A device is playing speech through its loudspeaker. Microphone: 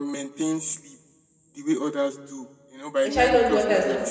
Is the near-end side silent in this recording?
No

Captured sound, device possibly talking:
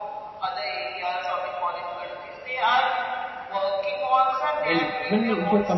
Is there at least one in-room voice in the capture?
Yes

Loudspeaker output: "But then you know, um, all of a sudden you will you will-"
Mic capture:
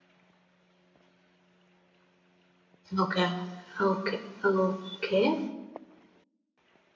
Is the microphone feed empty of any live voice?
No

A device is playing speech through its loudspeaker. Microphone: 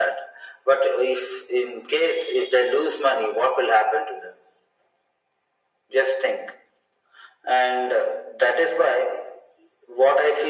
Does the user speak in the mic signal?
No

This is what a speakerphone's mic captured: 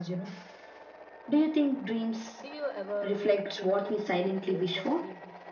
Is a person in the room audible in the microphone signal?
Yes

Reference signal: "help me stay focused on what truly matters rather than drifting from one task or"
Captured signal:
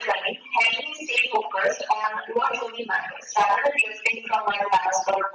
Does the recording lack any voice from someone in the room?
Yes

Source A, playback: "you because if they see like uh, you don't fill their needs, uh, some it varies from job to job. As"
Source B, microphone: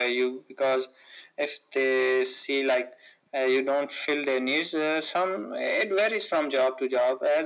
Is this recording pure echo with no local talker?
Yes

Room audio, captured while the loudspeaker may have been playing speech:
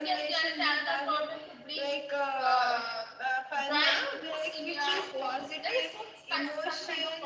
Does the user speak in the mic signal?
Yes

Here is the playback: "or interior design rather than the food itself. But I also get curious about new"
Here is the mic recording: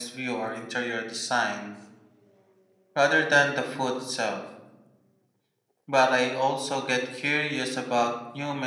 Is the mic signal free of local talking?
Yes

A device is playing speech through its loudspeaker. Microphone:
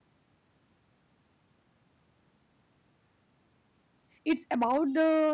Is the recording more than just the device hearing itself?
Yes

